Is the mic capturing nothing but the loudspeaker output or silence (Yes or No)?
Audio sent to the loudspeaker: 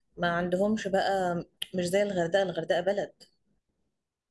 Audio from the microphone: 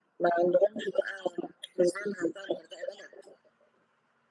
Yes